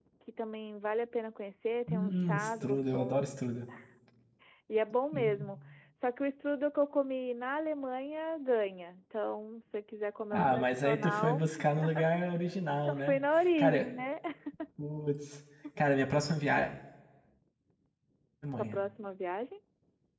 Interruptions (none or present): present